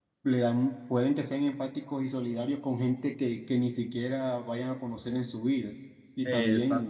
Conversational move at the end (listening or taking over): listening